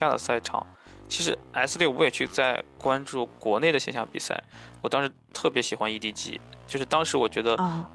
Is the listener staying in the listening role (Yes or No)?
Yes